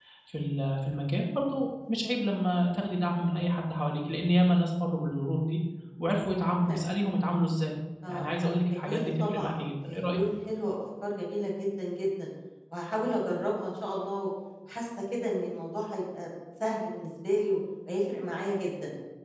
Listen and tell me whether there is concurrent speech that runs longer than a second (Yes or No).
Yes